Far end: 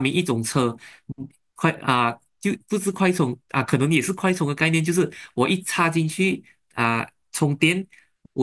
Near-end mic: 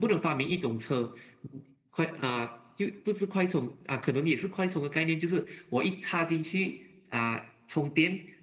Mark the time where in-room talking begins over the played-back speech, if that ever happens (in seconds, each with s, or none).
none